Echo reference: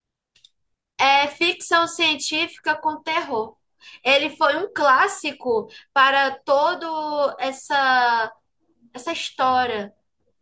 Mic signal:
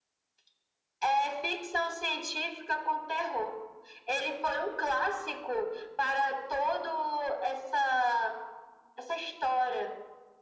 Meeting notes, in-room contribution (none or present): none